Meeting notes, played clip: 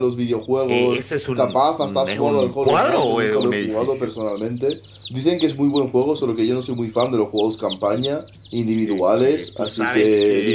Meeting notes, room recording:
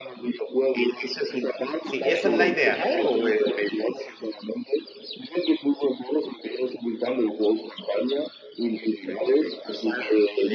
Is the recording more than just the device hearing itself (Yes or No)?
Yes